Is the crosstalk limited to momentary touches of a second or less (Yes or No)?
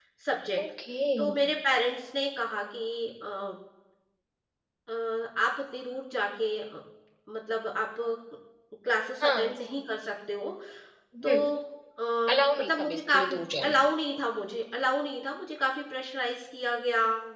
No